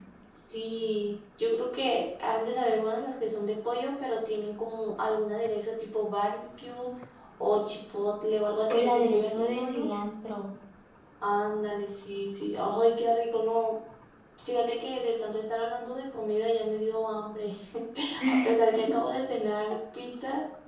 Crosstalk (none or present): present